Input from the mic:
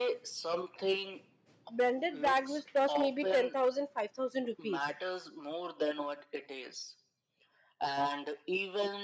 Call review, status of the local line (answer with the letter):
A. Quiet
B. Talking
B